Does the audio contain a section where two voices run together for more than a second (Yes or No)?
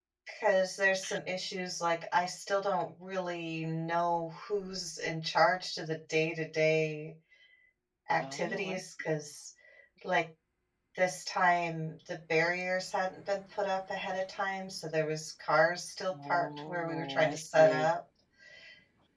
Yes